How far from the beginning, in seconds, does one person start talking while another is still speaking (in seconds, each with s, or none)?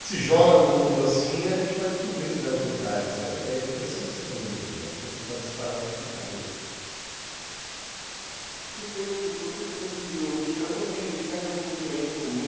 none